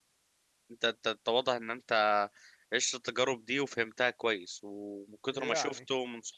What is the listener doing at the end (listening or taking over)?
listening